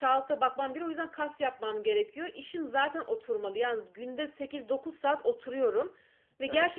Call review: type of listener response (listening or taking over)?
listening